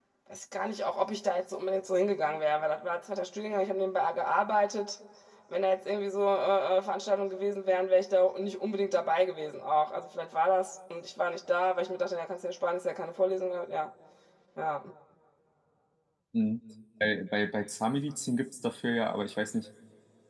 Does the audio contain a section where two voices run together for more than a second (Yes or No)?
No